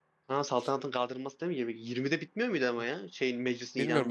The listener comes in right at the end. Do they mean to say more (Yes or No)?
Yes